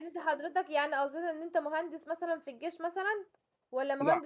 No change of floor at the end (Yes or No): Yes